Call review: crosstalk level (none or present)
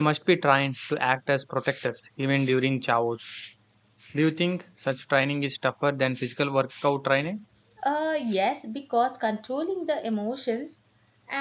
none